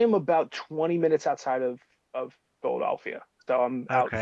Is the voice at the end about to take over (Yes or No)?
Yes